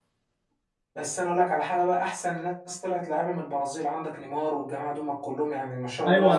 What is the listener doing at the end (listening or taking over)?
taking over